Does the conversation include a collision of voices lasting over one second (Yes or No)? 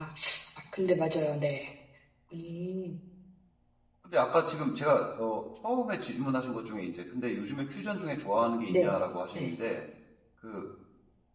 No